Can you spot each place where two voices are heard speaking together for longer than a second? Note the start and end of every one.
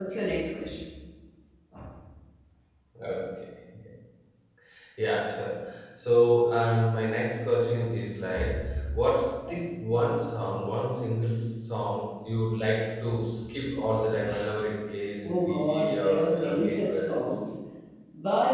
15.2-17.4

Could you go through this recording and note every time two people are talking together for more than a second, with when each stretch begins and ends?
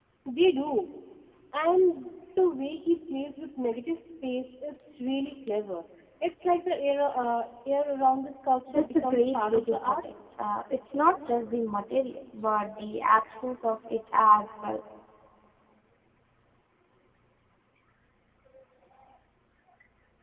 8.7-10.0

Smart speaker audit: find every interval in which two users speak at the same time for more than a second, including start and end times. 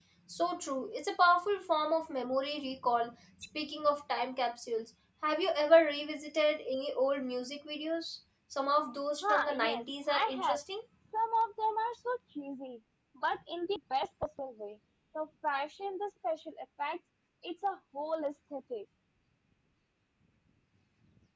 9.2-10.6

